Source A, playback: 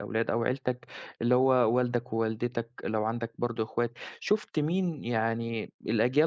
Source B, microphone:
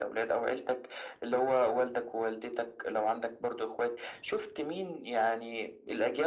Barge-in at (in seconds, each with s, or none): none